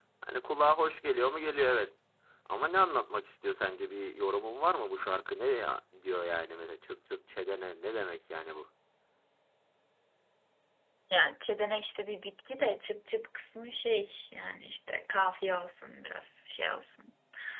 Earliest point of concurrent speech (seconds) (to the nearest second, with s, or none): none